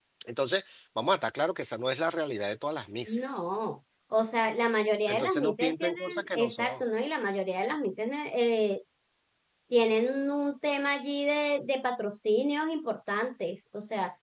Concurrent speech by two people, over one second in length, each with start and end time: 5.1-6.8

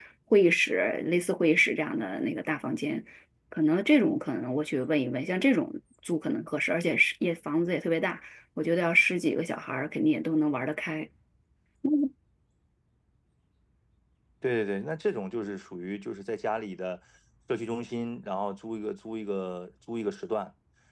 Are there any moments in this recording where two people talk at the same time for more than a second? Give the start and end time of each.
none

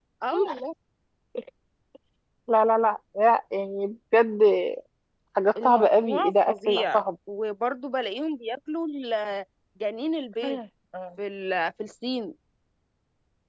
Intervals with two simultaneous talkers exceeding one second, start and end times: 5.6-7.0

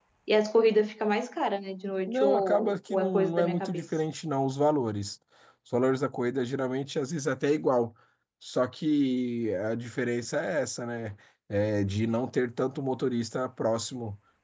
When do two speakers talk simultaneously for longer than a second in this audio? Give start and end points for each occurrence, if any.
2.1-3.9

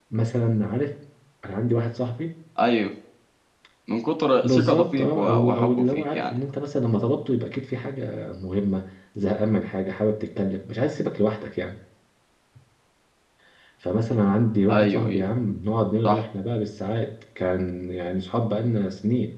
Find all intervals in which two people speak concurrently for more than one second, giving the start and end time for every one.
4.4-6.4

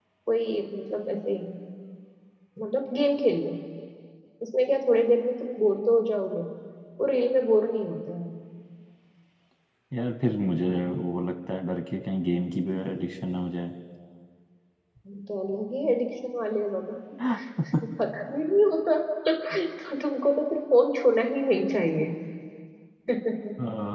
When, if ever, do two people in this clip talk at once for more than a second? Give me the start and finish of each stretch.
none

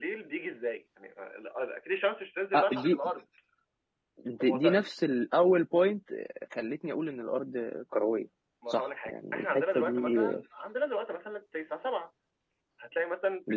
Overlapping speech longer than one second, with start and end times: 8.7-10.2

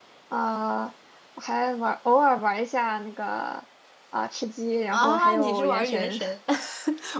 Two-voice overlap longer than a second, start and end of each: 4.9-6.2

